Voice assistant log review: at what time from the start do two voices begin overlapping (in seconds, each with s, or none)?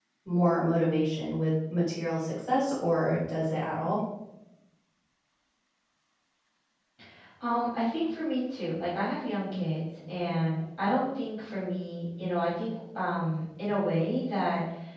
none